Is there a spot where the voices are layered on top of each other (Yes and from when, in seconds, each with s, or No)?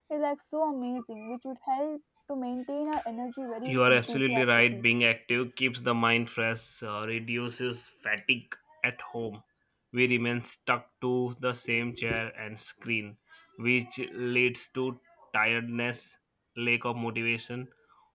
Yes, from 3.6 s